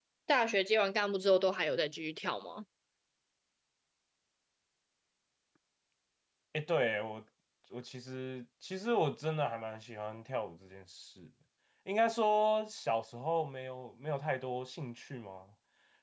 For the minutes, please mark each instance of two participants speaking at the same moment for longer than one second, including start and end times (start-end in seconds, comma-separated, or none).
none